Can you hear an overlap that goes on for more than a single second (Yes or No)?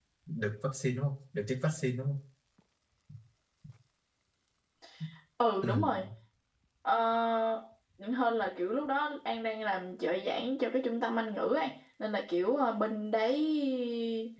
No